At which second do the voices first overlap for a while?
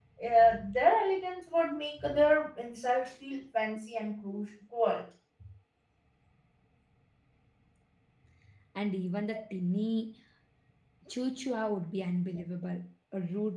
none

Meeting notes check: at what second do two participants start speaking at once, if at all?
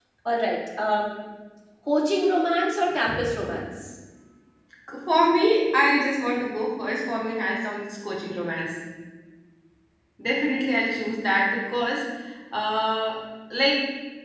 none

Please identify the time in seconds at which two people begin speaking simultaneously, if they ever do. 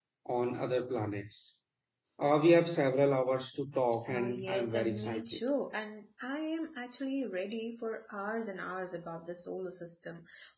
4.1 s

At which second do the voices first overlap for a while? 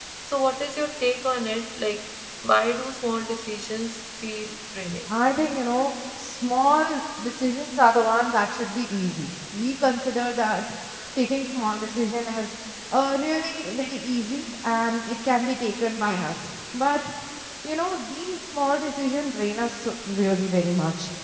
none

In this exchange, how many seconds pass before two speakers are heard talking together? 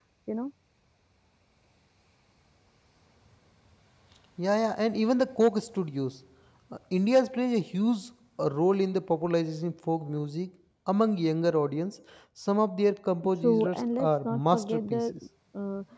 13.2 s

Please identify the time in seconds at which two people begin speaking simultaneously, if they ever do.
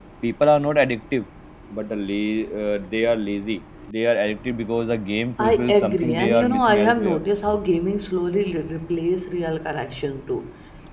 5.4 s

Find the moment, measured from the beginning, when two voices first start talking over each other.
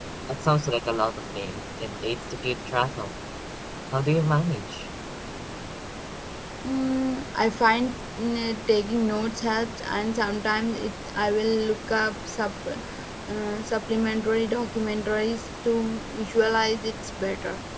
none

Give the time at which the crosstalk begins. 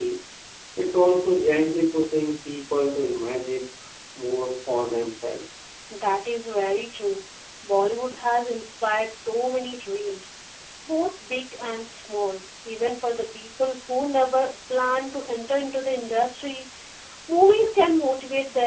none

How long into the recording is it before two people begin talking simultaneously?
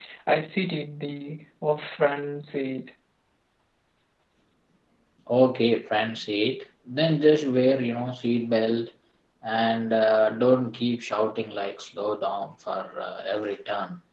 none

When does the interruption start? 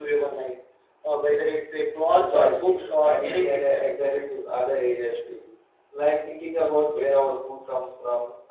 2.2 s

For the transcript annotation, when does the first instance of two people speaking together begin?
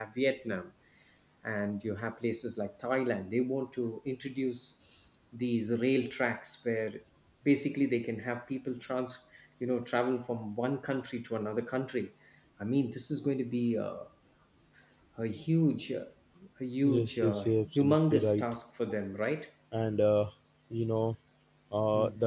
16.8 s

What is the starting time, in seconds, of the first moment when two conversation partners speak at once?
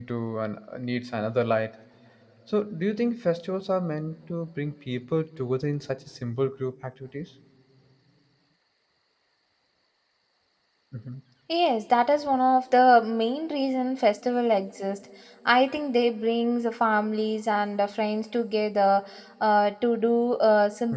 none

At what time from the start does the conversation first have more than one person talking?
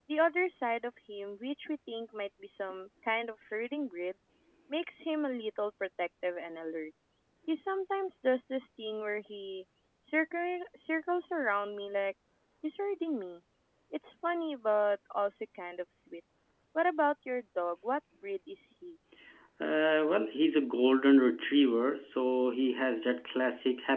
none

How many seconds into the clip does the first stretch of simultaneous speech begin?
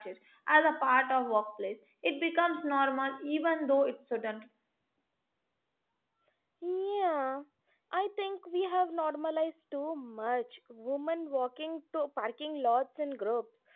none

